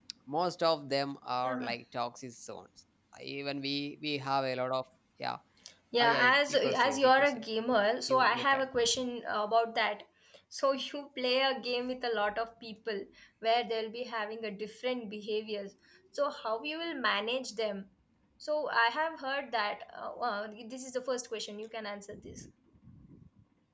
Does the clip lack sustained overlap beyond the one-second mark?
No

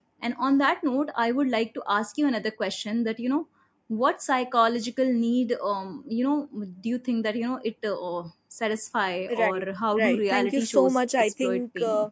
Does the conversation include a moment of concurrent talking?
Yes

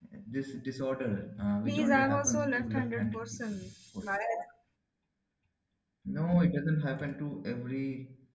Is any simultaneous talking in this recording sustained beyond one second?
Yes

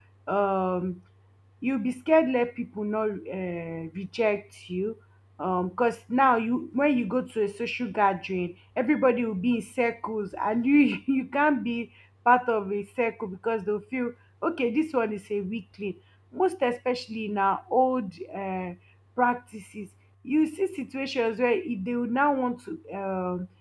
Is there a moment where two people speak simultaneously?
No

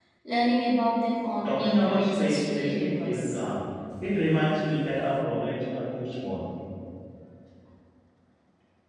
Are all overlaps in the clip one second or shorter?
No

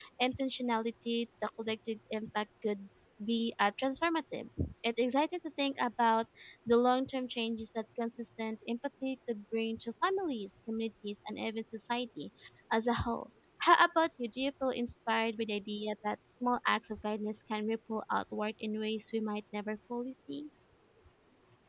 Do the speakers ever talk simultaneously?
No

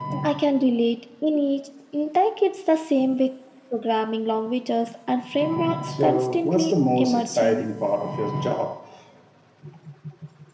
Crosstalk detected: Yes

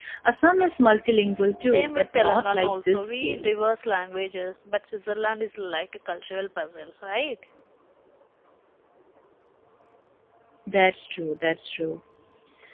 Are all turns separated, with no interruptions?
No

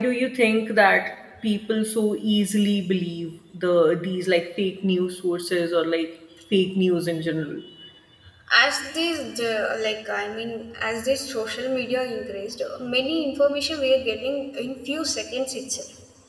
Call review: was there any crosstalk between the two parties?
No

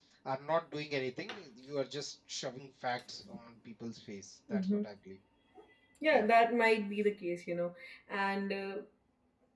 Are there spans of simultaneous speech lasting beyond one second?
No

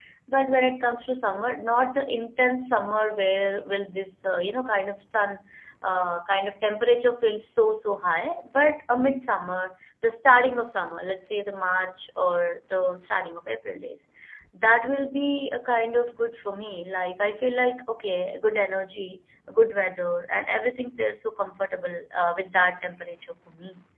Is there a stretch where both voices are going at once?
No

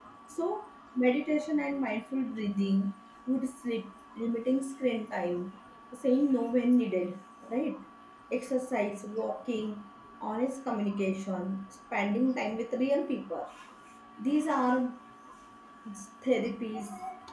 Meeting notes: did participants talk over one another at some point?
No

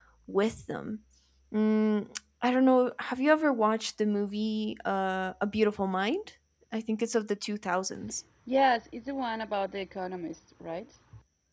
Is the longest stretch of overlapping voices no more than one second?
Yes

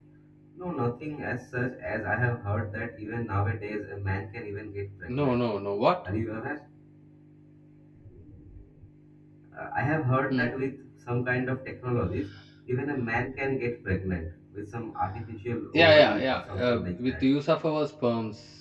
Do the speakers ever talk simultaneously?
Yes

